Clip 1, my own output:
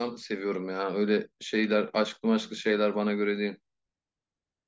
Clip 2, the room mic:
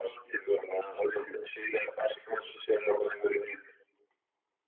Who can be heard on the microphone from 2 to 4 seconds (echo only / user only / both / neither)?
echo only